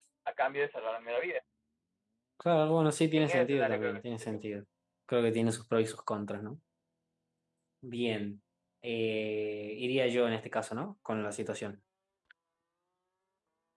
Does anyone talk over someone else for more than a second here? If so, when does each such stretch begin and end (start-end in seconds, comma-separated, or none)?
3.1-4.4